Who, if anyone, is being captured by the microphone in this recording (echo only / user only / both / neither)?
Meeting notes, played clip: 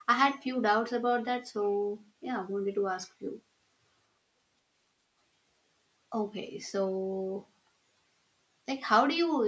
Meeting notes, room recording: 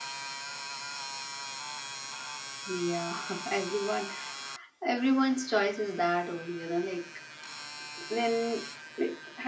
user only